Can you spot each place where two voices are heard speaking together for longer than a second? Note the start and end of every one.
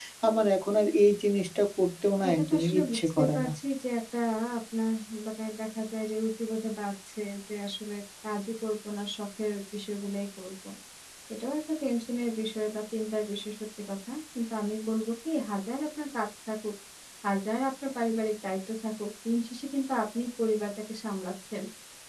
2.3-3.5

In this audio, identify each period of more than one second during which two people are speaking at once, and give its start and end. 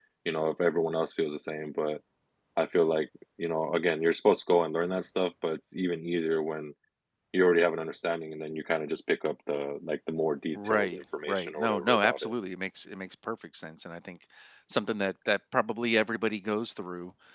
10.5-12.3

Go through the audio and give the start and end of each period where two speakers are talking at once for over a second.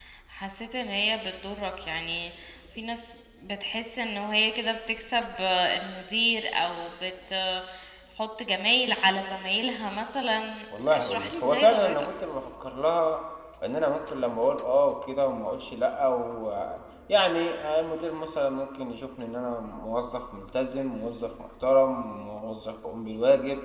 10.9-12.1

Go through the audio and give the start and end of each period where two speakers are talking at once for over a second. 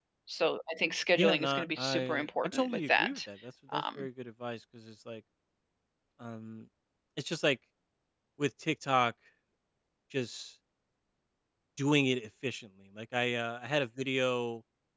1.2-3.2

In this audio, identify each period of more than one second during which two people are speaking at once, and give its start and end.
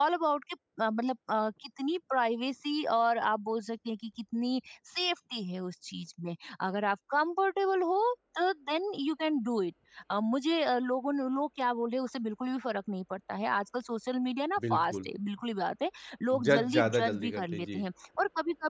16.4-17.8

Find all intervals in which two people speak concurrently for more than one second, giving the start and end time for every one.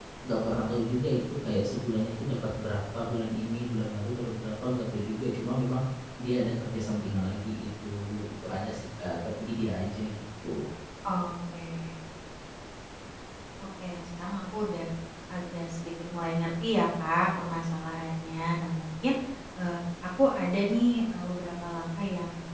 none

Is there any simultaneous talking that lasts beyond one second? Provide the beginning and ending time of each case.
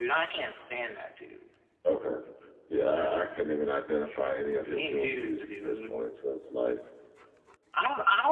4.6-6.0

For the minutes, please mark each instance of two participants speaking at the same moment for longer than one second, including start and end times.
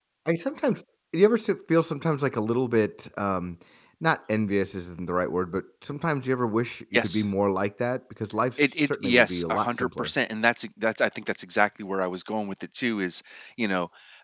8.6-10.1

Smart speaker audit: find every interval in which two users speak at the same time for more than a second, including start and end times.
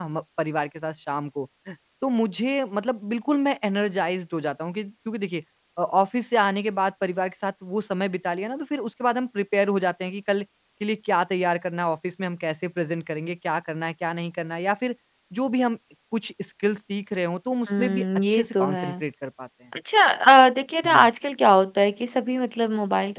17.8-19.0

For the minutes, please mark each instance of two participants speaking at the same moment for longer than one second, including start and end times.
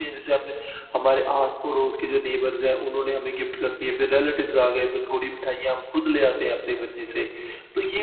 none

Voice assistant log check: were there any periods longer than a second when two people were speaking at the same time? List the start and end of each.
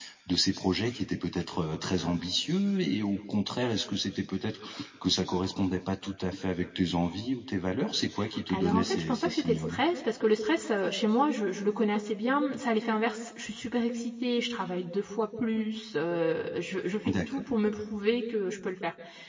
8.5-9.8

